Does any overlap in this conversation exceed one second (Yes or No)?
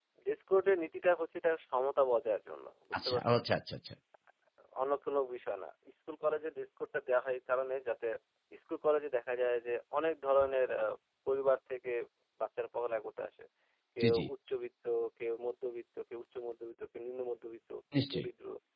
No